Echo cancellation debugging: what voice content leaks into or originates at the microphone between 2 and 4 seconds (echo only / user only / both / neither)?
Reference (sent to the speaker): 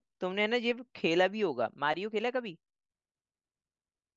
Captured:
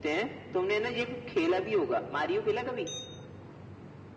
echo only